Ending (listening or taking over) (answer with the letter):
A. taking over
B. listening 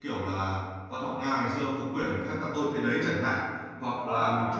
B